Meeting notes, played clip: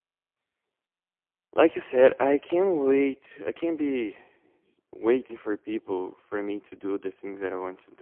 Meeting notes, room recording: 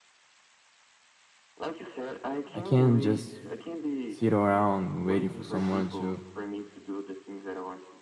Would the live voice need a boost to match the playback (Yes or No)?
No